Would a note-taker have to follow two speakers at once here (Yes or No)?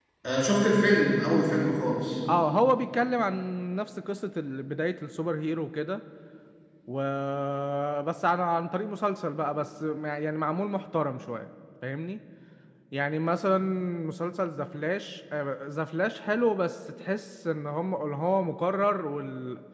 No